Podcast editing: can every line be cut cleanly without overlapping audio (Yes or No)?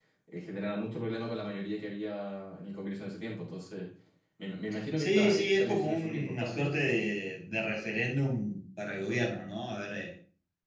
No